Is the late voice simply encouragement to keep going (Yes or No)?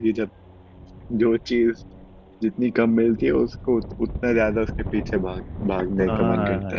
No